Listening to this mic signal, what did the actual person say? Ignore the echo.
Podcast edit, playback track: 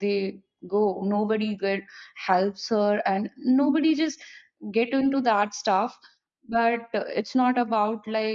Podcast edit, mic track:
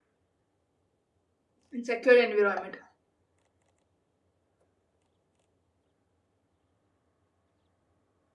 in secure environment

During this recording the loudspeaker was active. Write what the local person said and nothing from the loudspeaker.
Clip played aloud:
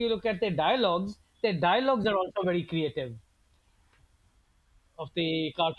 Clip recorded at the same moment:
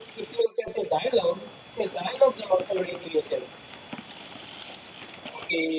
none

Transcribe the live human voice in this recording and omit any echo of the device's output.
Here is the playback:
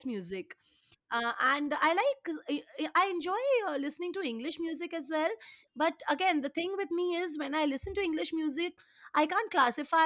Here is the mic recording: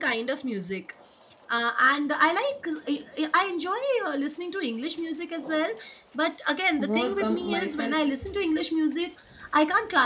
overcome myself

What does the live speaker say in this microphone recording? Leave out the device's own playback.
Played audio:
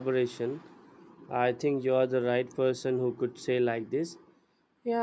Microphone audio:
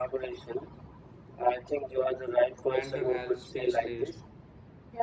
mental health specialists,

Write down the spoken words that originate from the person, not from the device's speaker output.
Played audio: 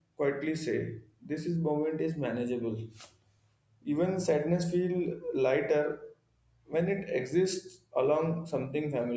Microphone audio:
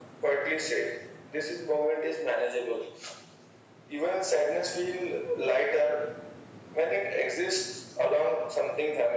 none

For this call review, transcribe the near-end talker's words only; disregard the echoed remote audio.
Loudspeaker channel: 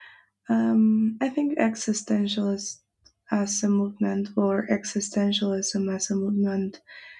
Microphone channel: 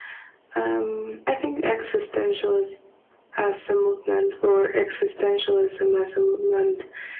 none

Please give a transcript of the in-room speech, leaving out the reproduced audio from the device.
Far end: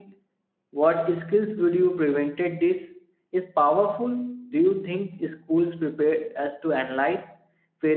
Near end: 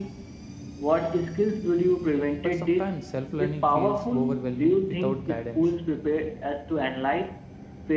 But sometimes self learning feels overwhelming without guidance.

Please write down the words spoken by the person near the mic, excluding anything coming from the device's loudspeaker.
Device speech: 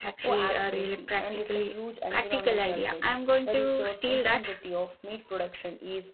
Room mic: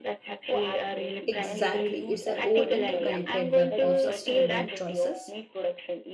Exactly. It's a whole interconnected web of sustainable choices.

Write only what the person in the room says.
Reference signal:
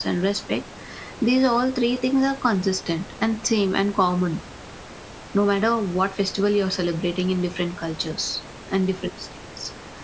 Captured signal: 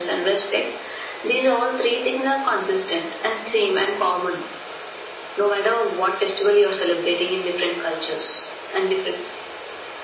none

